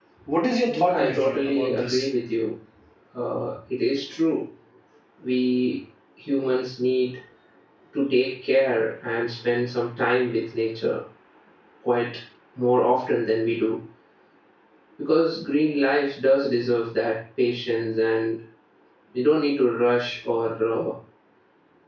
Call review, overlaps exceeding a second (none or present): present